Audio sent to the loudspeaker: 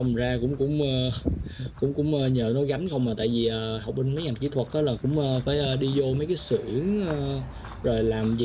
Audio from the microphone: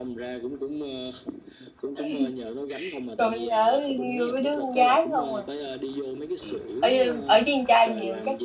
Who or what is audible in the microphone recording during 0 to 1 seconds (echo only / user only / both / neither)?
echo only